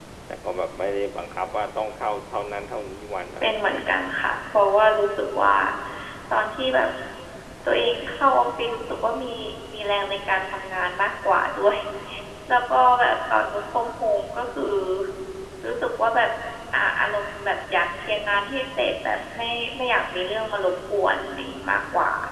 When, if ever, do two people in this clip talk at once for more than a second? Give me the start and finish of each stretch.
none

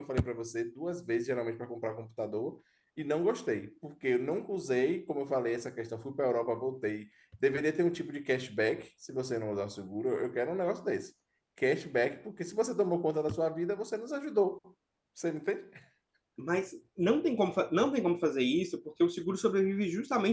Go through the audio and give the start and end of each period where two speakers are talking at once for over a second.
none

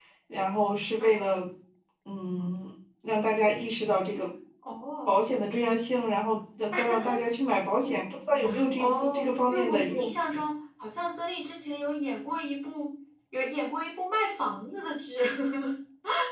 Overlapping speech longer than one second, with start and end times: 8.7-10.0

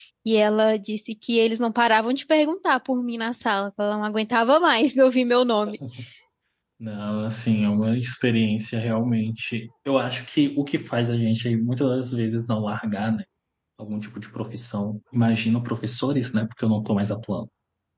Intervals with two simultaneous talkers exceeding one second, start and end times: none

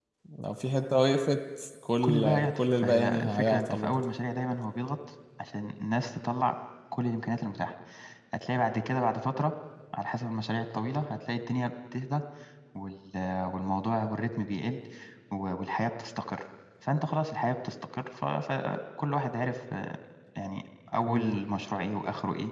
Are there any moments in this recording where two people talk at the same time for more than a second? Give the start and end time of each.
2.0-4.0

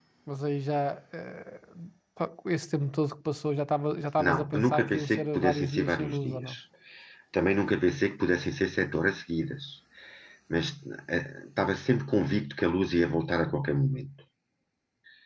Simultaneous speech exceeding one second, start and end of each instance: 4.2-6.5

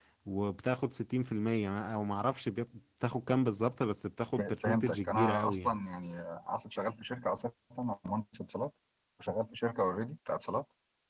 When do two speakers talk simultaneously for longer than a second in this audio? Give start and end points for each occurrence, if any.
4.4-5.7

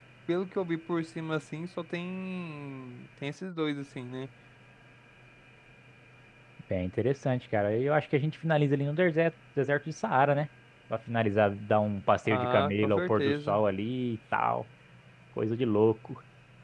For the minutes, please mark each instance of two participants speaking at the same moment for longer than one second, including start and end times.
12.2-13.6

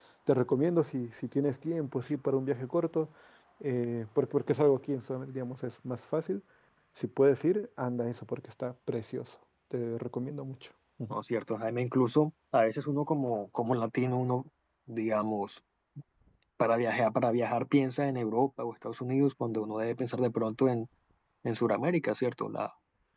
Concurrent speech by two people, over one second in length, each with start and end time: none

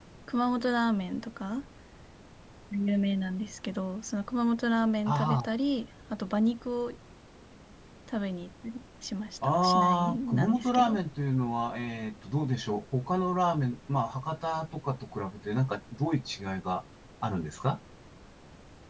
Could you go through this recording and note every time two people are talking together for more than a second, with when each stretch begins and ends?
9.4-11.0

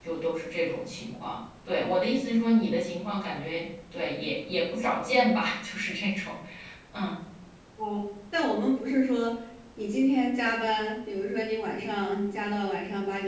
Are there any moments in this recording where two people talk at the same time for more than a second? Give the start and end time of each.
none

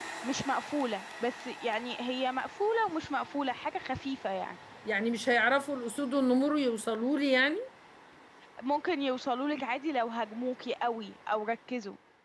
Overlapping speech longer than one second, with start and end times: none

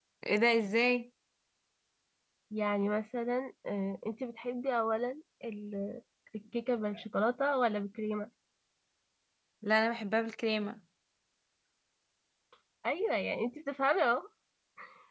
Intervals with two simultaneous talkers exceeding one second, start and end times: none

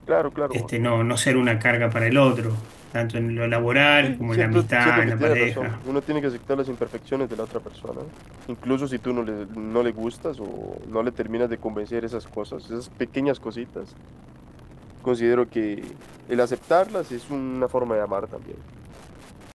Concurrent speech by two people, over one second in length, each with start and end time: 4.0-5.8

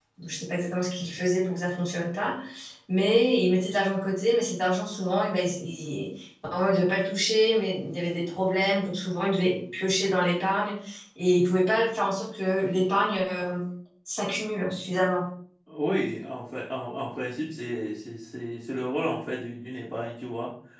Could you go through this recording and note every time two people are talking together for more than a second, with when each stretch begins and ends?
none

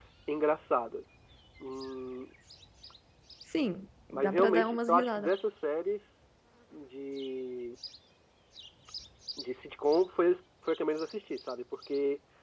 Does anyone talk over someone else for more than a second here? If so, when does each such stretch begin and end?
4.1-5.3

